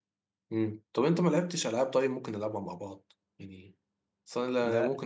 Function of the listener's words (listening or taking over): listening